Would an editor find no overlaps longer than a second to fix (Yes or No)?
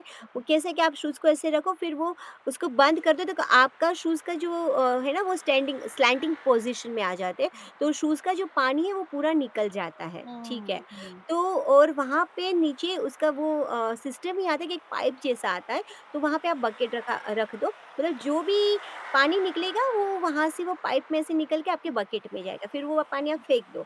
Yes